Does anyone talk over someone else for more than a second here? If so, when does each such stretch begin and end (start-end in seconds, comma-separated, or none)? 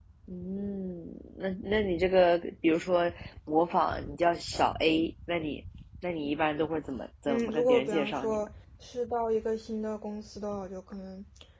7.2-8.5